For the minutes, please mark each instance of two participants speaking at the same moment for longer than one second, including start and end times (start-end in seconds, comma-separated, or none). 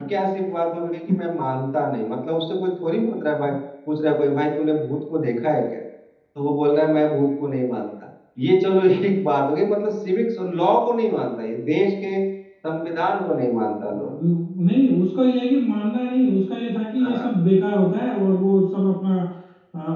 none